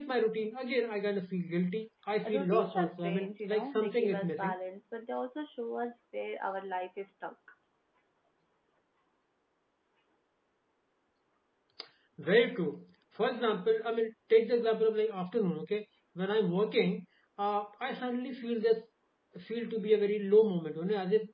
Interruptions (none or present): present